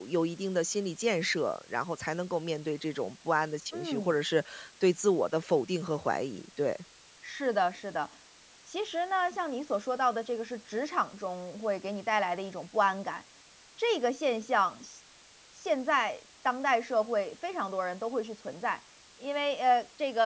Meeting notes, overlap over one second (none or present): none